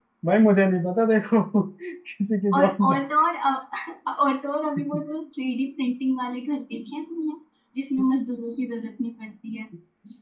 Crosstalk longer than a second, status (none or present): none